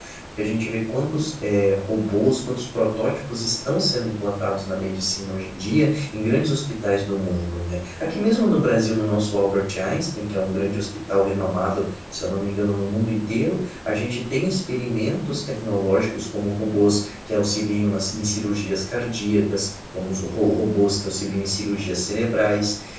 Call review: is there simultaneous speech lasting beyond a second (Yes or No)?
No